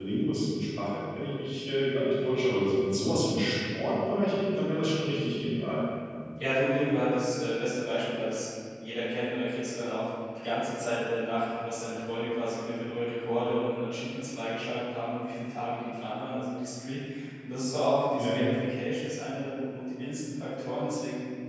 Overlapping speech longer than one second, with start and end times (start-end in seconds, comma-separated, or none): none